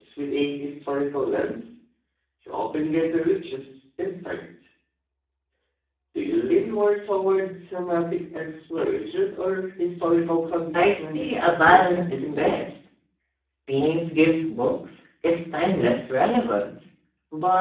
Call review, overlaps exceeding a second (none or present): present